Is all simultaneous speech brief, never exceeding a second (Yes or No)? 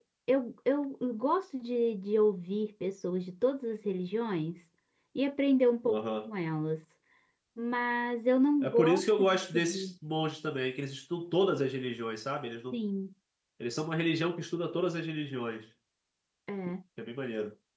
No